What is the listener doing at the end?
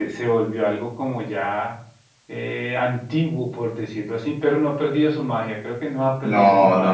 taking over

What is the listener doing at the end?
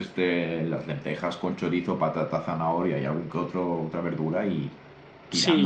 taking over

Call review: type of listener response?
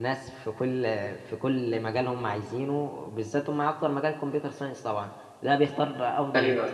listening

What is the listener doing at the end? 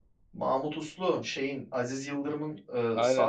taking over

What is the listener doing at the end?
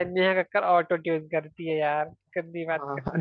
taking over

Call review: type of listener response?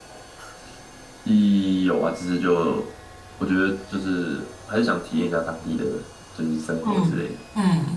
taking over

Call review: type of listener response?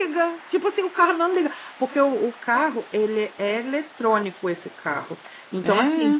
listening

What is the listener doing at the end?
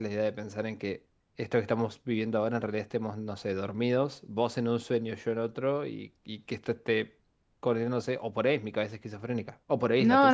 taking over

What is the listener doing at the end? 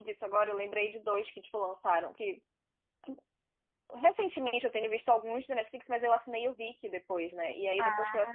listening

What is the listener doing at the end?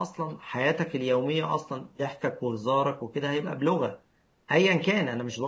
listening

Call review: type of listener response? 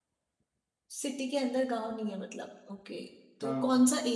listening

